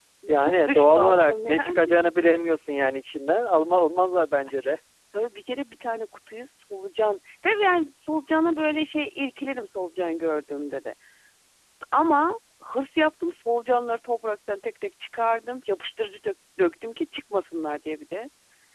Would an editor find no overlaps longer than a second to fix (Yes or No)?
No